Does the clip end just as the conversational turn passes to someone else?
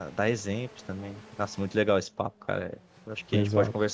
No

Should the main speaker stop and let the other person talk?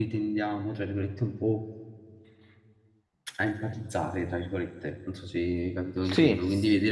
No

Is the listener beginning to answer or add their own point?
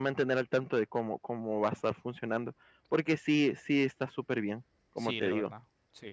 Yes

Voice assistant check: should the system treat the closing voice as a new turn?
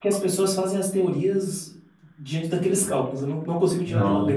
Yes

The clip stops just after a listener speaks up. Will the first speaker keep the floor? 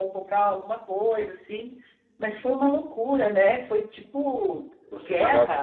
No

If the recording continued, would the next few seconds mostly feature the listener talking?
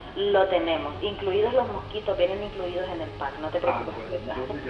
Yes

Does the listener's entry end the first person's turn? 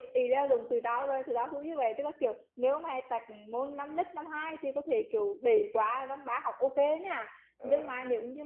No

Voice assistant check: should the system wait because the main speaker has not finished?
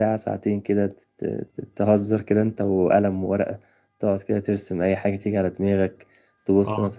Yes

